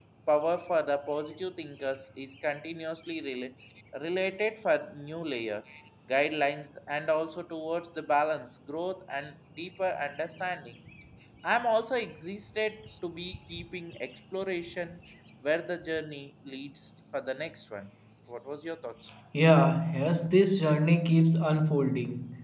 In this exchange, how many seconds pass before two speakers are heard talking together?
none

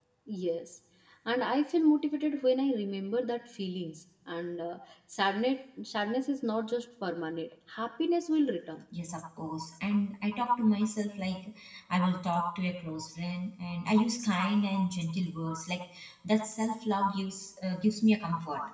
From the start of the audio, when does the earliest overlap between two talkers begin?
none

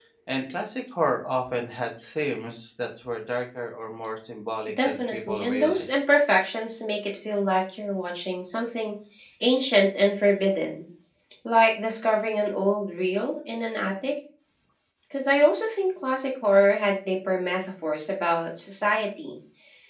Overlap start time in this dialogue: 5 s

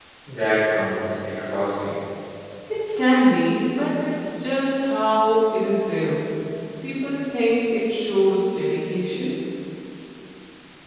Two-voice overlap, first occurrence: none

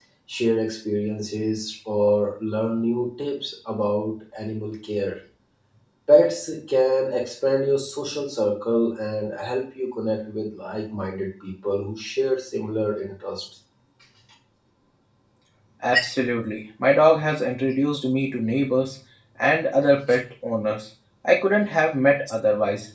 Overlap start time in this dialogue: none

